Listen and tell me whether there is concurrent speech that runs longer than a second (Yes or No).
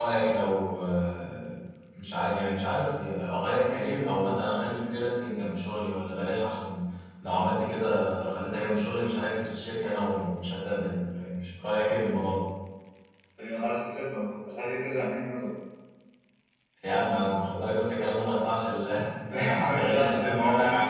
Yes